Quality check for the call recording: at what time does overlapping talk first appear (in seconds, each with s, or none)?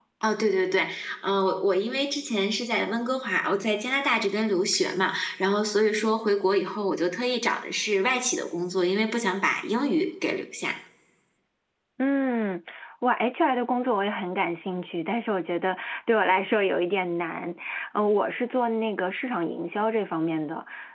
none